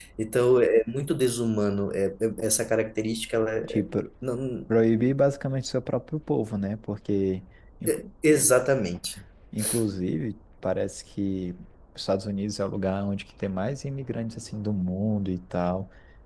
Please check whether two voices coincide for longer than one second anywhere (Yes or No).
No